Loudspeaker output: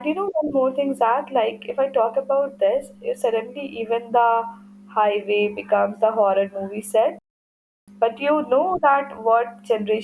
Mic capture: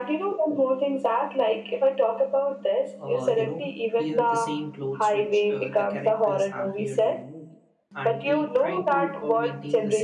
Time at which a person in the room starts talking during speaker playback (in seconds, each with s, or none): 3.0 s